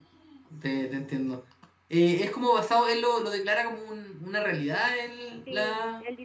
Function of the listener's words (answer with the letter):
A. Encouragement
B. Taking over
B